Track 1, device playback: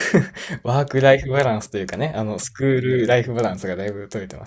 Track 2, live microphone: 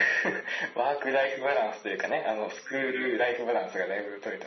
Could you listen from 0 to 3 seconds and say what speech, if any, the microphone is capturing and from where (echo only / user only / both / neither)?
echo only